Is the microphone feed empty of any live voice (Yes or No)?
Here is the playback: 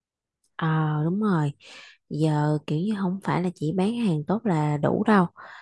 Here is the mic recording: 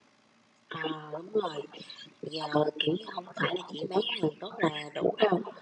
Yes